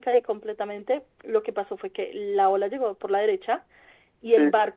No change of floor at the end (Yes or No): Yes